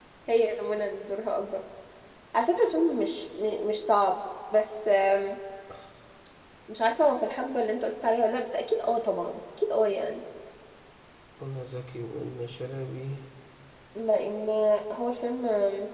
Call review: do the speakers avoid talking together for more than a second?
Yes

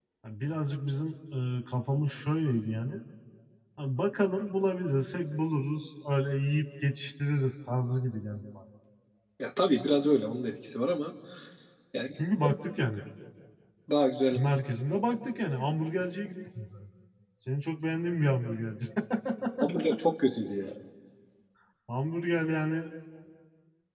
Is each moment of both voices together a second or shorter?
Yes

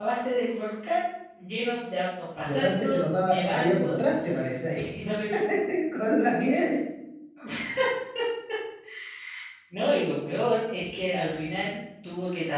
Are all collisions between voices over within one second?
No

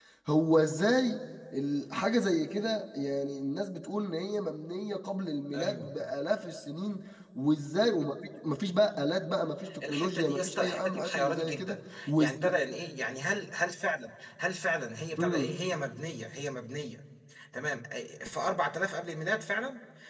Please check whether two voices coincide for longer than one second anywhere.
Yes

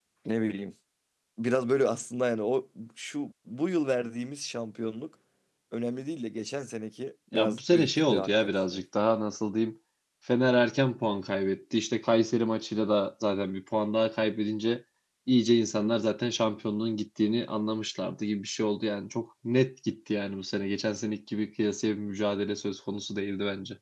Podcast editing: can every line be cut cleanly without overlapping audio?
No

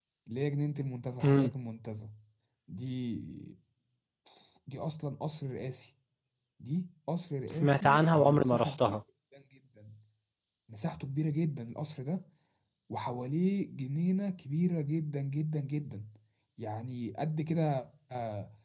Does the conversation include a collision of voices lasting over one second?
Yes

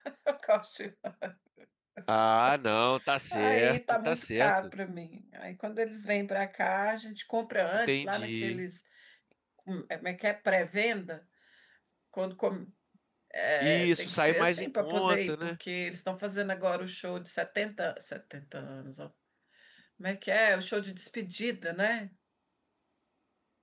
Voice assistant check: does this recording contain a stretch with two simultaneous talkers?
Yes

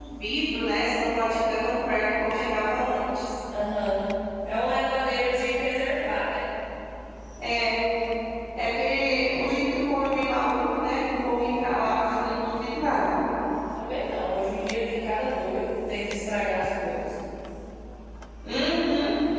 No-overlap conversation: Yes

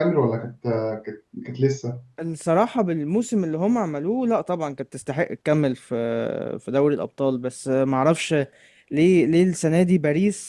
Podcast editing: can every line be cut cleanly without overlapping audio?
Yes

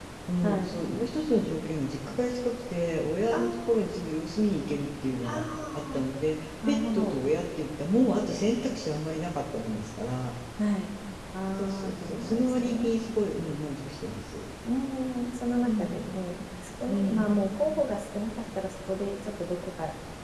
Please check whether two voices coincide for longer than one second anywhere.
Yes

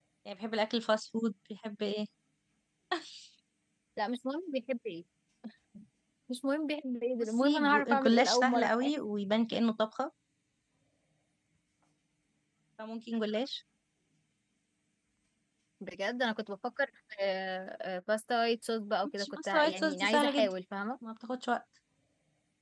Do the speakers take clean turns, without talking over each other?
No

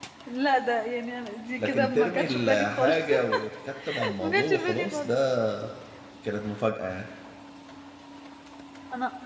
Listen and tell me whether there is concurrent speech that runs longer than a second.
Yes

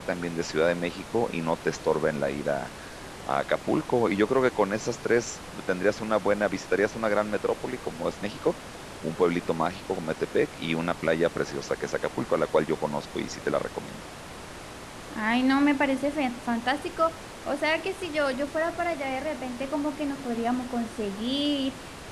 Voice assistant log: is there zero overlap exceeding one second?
Yes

